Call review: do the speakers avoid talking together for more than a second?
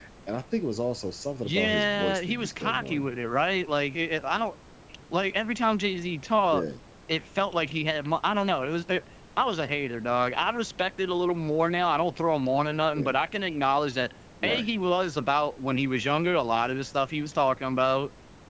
No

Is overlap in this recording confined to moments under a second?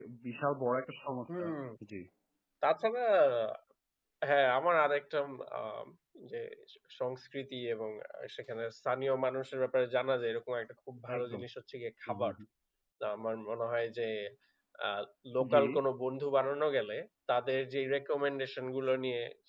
Yes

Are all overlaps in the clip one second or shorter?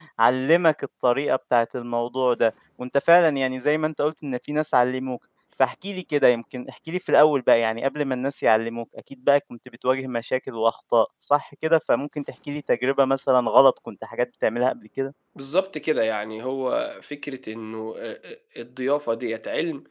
Yes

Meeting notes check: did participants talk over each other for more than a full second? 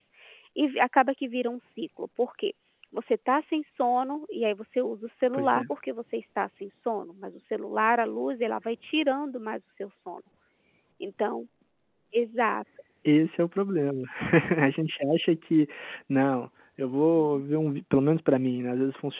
No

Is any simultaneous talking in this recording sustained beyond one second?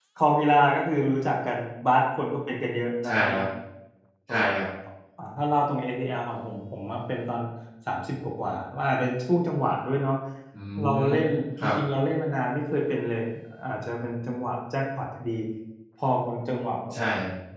No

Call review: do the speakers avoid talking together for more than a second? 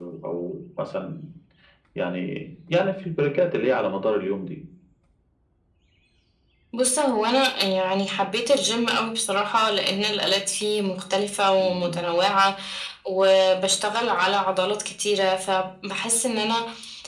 Yes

